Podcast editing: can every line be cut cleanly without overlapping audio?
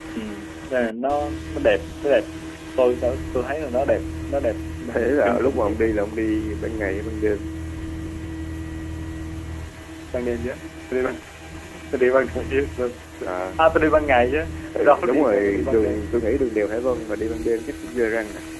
No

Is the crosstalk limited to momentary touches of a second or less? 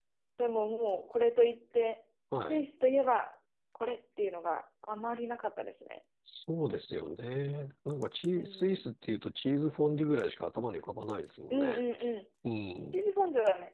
Yes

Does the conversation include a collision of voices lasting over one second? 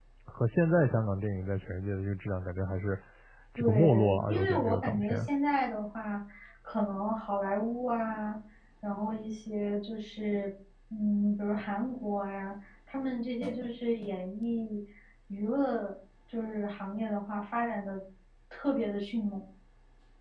Yes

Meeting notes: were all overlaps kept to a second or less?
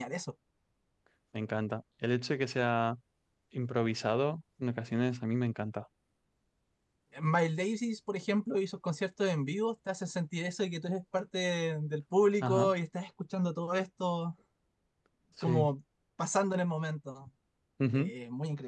Yes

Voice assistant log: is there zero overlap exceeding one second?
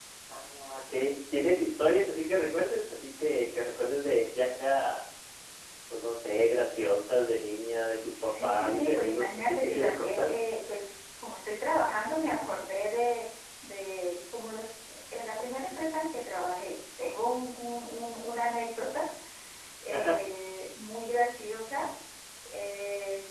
No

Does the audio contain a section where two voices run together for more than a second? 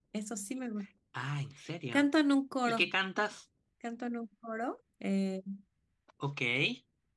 No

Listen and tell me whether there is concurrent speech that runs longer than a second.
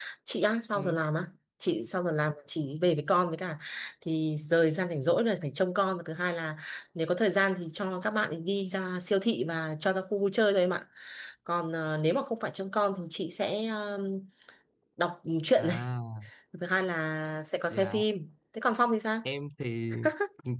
No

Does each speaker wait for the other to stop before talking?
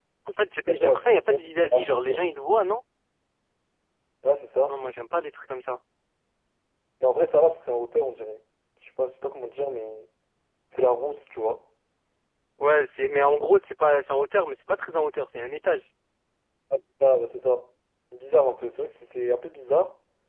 No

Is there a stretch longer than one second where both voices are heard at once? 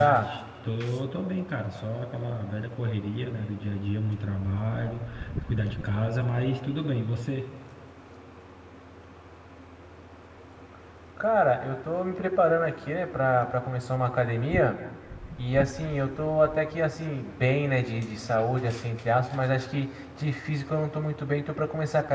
No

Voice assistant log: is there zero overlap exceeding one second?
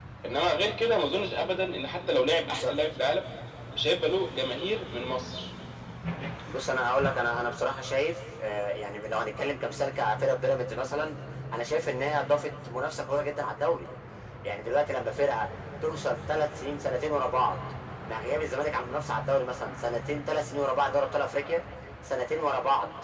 Yes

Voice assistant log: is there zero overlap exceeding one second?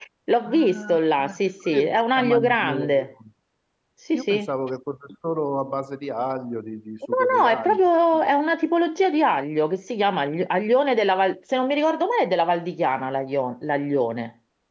No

